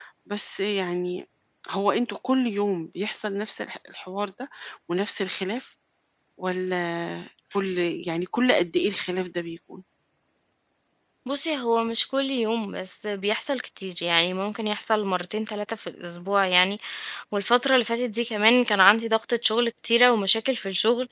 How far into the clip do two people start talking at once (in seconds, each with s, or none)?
none